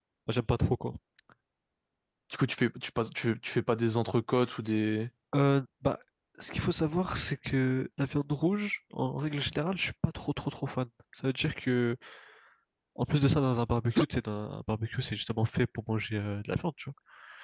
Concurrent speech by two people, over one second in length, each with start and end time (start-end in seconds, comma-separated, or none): none